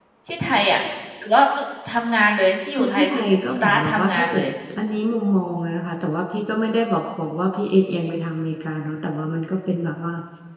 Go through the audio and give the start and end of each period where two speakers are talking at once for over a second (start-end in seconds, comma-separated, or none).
2.8-4.4